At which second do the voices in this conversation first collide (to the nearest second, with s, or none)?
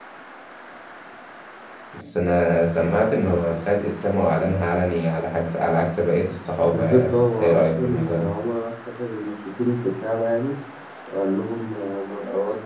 7 s